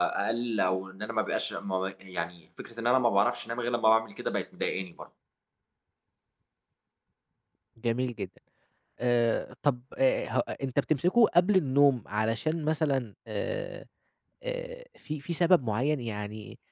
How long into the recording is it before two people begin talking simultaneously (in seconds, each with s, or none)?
none